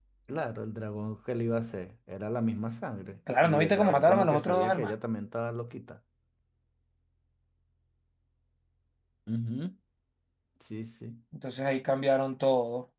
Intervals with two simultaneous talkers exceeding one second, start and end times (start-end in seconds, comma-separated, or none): 3.4-4.9